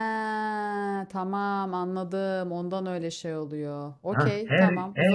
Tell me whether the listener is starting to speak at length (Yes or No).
Yes